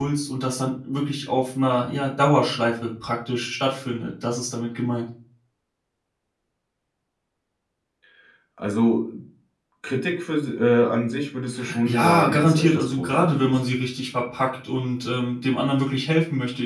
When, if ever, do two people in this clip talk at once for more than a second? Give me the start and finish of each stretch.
11.8-13.6

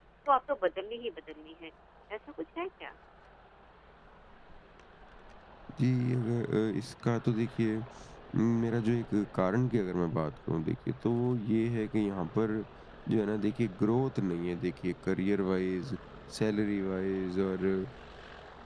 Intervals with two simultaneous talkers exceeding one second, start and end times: none

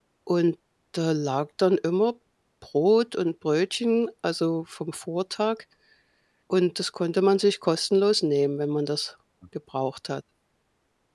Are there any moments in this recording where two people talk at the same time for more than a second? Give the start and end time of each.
none

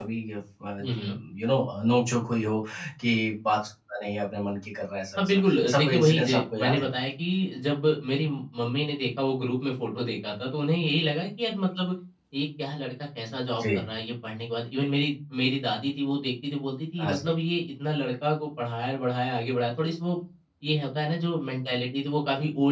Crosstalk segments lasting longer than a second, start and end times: 5.2-6.9

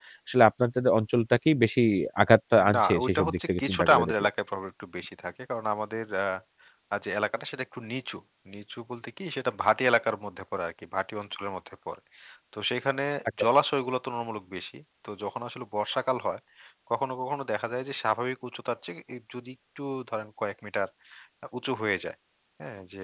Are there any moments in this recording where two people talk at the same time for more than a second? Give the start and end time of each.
2.8-4.3

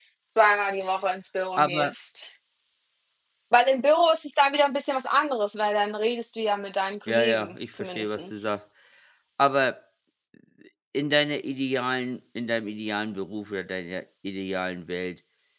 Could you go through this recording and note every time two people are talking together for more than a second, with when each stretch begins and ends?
7.1-8.5

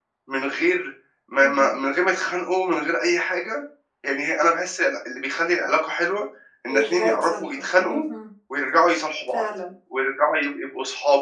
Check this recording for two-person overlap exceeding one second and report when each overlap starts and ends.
6.7-8.0

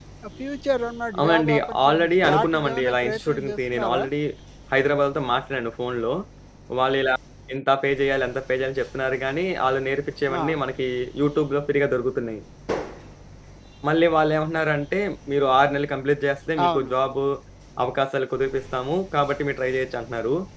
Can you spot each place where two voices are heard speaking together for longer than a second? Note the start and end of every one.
1.2-4.0

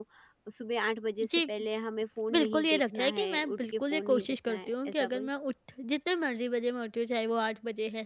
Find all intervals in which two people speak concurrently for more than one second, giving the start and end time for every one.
2.3-5.3

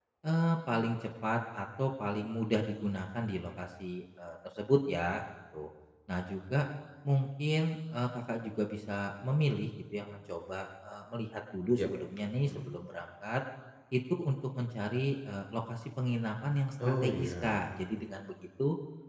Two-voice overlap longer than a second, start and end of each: 16.8-18.1

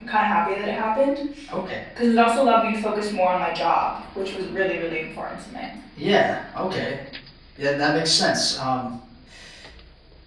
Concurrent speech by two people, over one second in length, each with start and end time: none

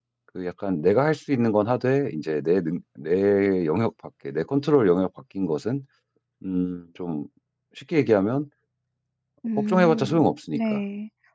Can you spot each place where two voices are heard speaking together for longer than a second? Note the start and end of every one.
9.6-10.8

